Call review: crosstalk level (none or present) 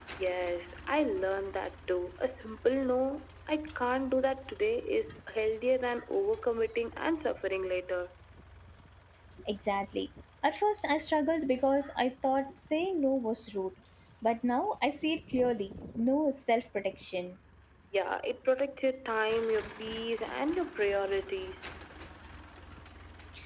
none